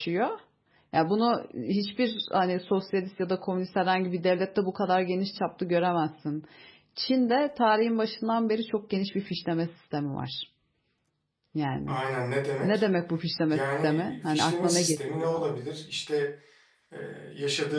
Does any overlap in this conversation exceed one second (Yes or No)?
Yes